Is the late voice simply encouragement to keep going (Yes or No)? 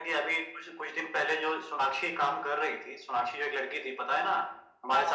Yes